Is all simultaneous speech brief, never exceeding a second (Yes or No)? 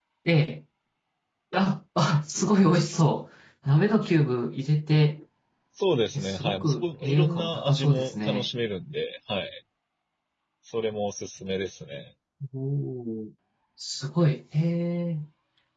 No